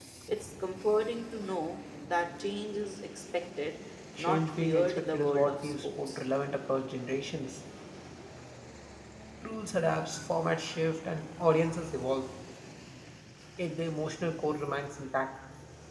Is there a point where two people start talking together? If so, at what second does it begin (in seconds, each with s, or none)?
4.2 s